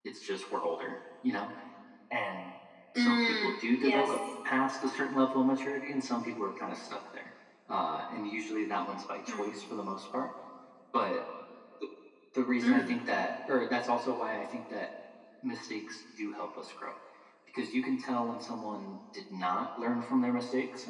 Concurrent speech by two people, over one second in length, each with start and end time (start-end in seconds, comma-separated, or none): 3.0-4.2